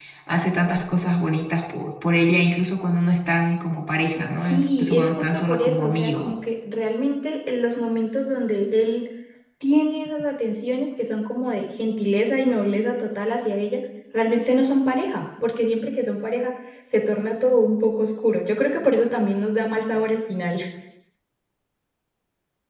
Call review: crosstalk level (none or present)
present